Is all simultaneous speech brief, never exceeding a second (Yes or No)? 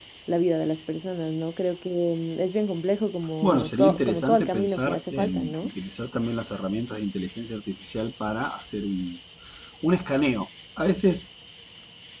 No